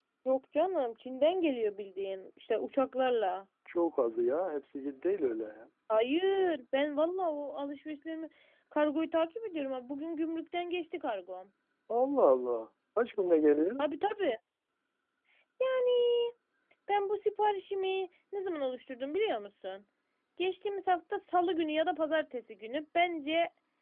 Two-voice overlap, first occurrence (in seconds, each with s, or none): none